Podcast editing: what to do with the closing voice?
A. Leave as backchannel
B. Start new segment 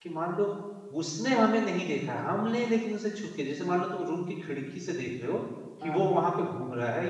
A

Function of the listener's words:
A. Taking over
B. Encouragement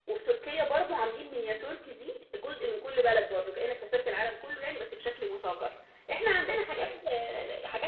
B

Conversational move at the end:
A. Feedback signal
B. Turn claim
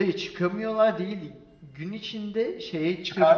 A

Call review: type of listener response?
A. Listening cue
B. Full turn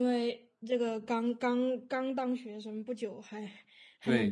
B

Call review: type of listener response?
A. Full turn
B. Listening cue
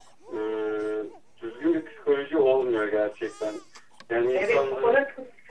A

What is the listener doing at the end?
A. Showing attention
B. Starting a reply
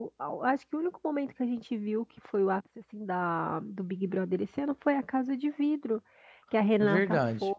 A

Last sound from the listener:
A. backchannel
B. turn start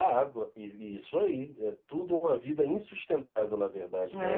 B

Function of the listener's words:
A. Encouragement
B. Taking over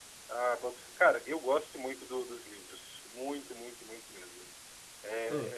A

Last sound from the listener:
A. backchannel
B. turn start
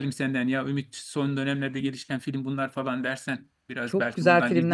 B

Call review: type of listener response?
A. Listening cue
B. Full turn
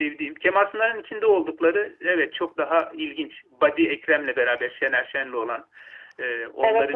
A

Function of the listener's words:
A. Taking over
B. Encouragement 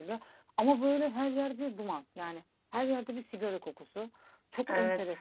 B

